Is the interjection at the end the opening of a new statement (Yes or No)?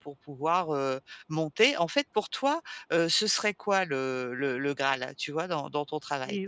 Yes